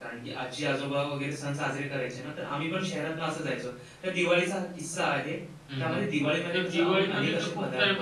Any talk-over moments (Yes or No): Yes